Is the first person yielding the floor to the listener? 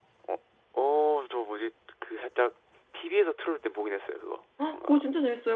Yes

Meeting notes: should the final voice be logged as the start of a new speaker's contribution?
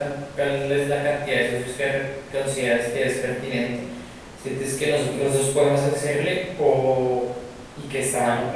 No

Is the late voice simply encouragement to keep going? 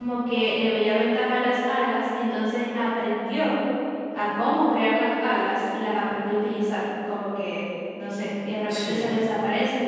Yes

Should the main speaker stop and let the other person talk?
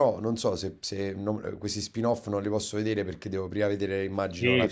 Yes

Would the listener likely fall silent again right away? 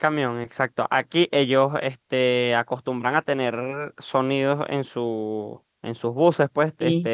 Yes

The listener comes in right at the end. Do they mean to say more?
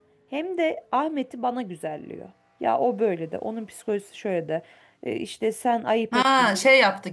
Yes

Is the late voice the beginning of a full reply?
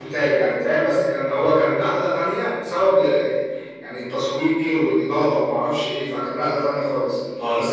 No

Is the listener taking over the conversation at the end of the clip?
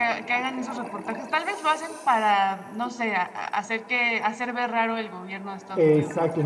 Yes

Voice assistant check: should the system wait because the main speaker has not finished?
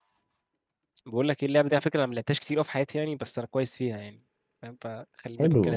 No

